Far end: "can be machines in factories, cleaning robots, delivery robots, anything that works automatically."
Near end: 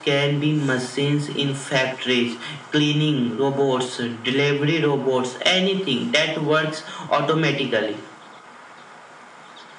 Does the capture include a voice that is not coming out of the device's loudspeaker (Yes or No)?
No